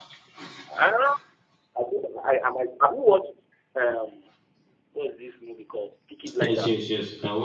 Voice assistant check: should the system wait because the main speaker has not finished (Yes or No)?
No